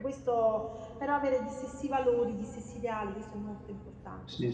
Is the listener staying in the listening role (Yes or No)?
No